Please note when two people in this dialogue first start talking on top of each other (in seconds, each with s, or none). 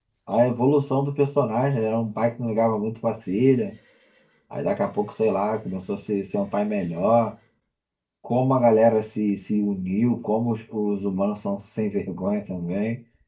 none